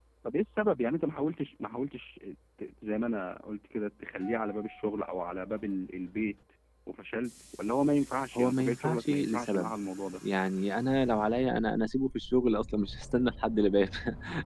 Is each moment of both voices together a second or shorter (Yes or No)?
No